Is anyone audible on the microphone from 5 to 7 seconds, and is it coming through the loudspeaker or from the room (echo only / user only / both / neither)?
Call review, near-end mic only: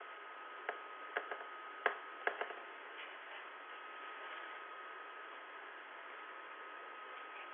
neither